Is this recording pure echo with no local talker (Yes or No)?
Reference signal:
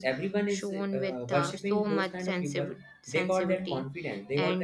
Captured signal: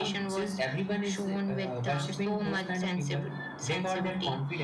Yes